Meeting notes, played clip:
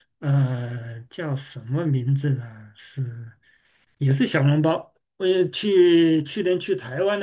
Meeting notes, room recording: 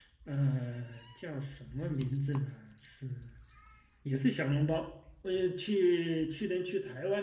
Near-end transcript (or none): none